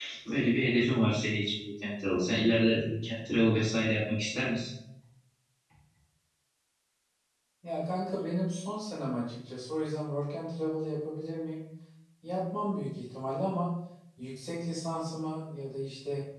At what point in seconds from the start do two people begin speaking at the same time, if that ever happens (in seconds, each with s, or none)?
none